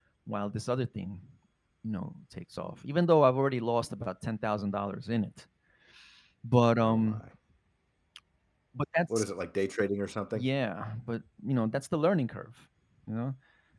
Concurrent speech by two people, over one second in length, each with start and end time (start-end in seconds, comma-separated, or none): none